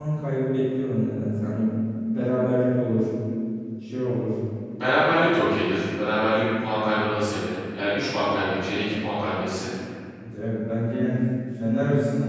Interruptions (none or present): none